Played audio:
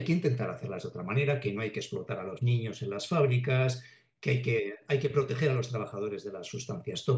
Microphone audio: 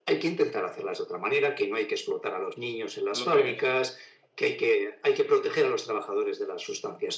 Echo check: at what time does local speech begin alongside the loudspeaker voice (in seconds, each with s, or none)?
3.1 s